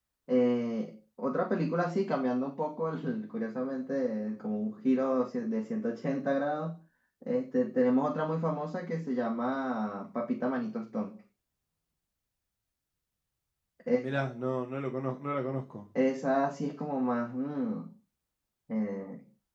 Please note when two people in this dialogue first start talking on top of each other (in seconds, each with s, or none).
none